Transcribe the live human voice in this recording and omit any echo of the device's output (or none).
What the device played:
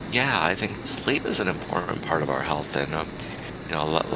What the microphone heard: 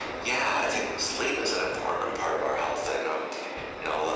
Unless you, end,